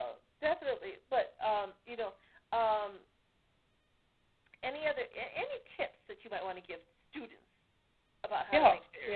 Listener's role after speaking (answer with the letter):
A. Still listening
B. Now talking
B